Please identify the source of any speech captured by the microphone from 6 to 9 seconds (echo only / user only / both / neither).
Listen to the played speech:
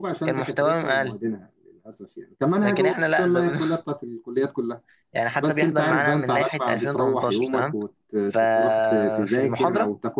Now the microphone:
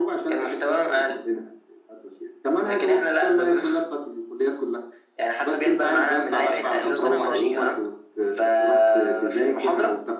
both